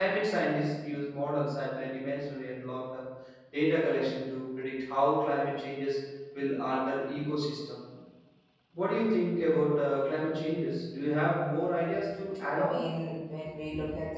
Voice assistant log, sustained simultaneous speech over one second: none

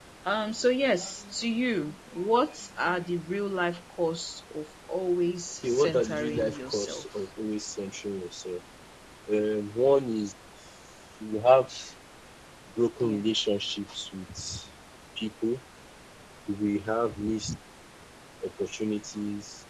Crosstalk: present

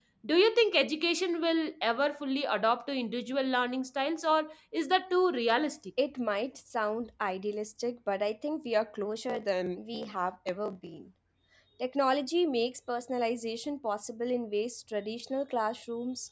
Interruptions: none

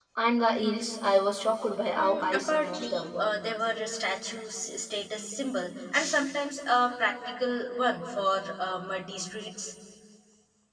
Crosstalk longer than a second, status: present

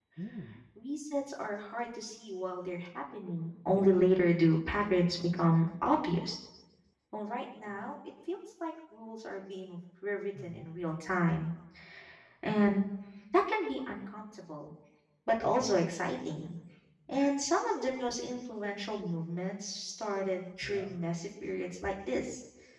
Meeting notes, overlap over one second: none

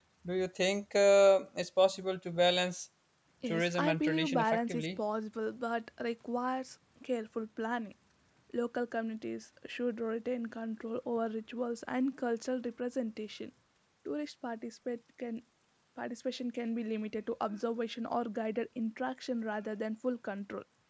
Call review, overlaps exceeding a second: present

